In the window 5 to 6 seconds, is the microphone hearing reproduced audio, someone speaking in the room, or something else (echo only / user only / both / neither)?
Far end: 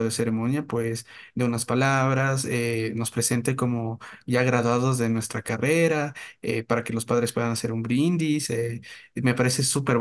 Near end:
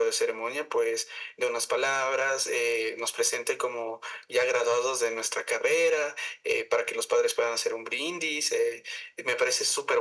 echo only